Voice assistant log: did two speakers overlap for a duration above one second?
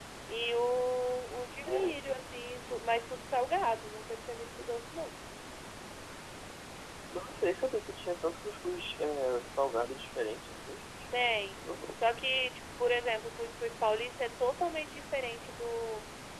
No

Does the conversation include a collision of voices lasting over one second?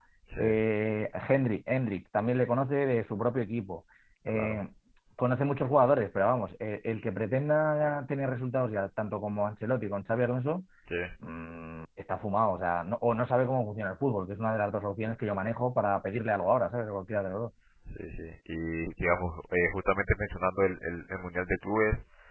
No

